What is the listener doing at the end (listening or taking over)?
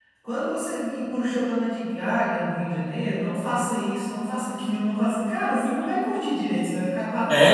taking over